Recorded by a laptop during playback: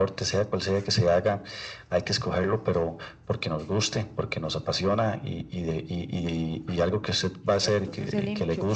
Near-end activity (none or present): present